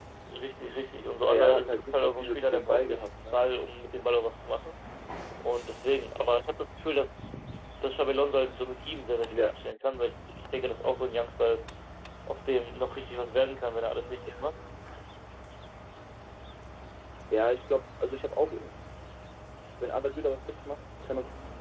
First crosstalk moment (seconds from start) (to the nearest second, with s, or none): 1 s